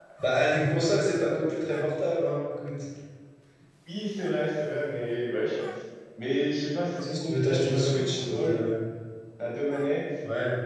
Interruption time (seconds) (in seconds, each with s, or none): 7.0 s